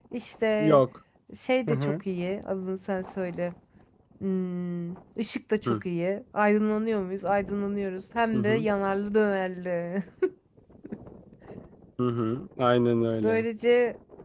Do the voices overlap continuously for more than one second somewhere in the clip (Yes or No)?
No